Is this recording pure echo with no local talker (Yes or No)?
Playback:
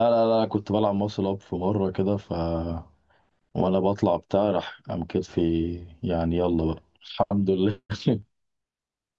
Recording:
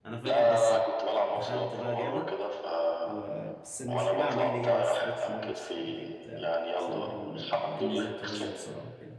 No